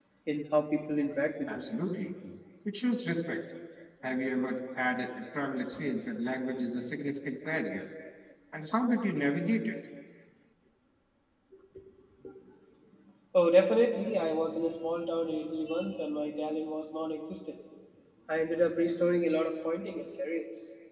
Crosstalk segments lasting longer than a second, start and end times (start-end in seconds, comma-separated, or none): none